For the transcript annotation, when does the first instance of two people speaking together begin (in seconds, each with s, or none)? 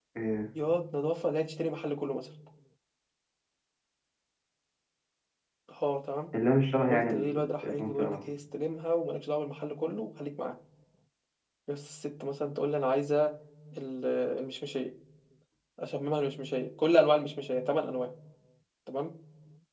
6.9 s